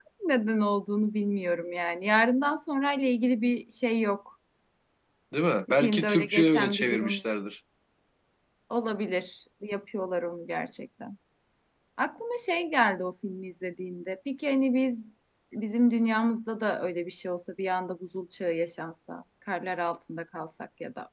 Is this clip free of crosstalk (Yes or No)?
No